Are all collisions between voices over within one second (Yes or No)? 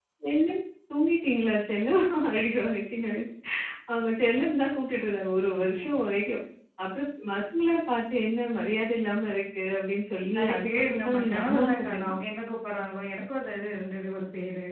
No